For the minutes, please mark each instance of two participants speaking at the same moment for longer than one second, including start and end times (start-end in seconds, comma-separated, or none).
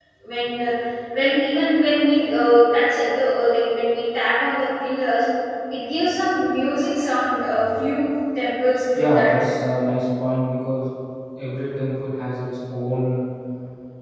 none